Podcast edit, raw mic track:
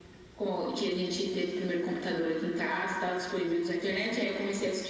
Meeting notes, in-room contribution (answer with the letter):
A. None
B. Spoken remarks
A